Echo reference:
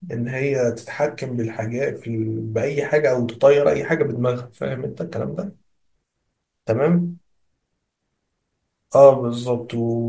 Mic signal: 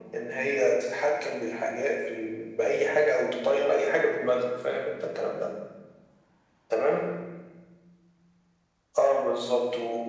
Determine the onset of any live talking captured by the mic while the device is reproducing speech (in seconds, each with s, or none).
none